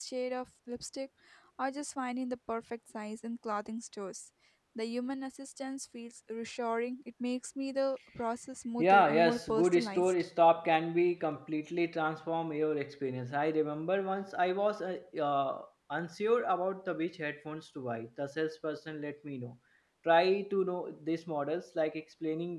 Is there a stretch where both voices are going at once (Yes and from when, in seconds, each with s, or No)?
Yes, from 8.8 s